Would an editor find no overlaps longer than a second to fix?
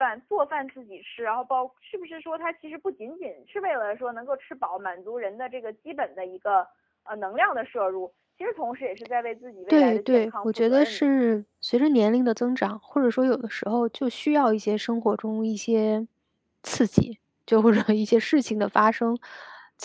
No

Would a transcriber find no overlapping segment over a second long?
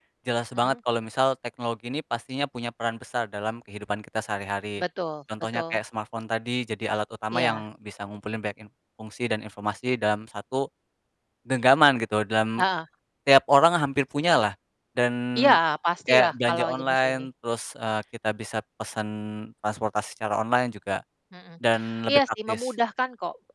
No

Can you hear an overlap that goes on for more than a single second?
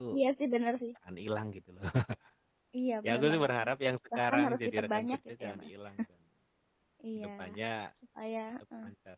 Yes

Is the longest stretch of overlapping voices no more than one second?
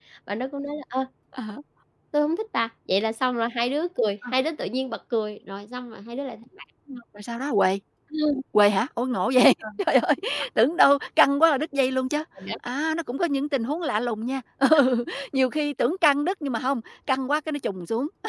Yes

